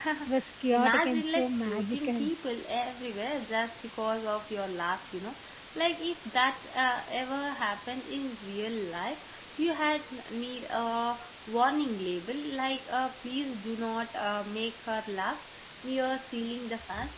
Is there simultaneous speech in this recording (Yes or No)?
Yes